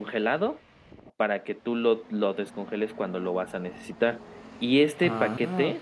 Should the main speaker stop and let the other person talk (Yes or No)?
No